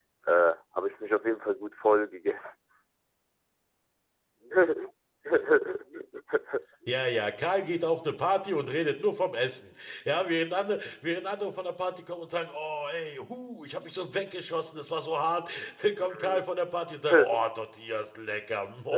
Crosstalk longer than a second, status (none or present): none